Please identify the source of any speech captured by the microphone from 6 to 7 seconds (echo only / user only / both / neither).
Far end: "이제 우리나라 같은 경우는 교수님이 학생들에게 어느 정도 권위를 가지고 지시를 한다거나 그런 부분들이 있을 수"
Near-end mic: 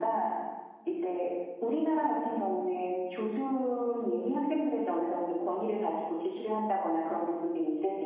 echo only